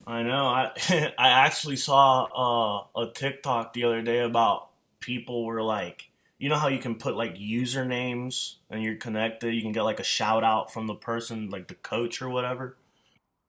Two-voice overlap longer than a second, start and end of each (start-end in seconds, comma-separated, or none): none